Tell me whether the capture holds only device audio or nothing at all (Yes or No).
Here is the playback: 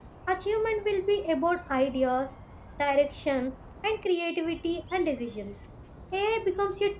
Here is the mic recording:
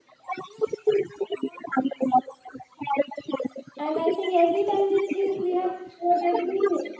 No